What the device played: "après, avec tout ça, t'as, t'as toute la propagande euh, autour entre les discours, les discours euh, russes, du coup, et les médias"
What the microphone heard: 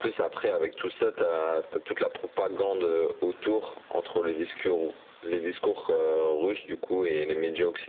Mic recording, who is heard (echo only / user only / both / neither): echo only